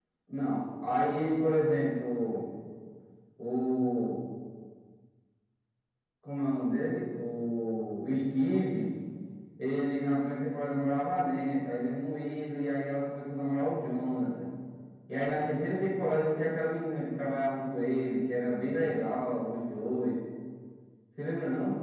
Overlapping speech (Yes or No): No